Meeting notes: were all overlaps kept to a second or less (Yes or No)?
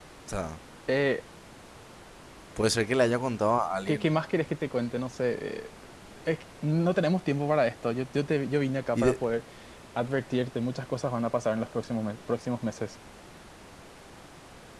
Yes